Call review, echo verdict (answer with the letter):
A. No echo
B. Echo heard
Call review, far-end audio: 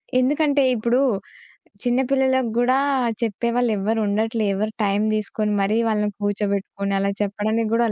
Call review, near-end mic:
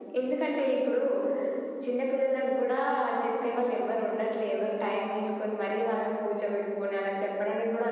B